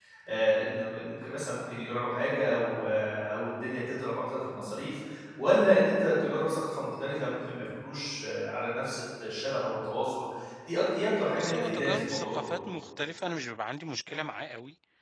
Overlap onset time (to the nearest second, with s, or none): 11 s